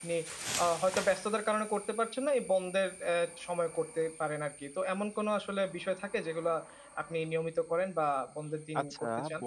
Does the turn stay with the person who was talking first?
No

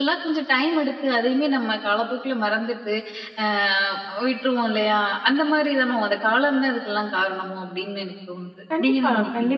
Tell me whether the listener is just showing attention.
No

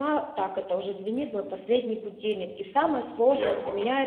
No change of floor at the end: Yes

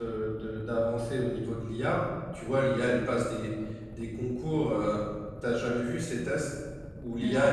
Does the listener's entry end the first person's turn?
No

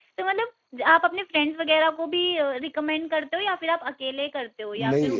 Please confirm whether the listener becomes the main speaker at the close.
Yes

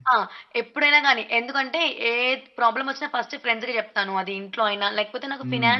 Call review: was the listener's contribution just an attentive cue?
Yes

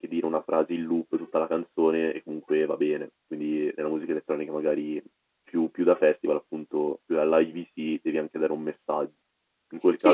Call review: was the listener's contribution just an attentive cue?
No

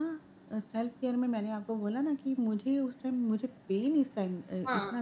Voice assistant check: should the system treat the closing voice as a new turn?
No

